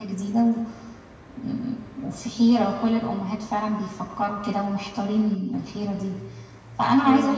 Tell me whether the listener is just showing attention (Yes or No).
Yes